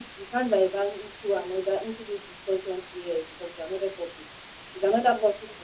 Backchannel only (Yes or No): Yes